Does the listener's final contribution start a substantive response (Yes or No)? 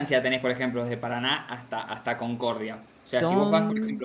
No